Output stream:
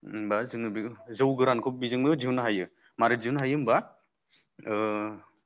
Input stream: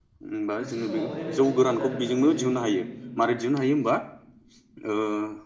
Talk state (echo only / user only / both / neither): both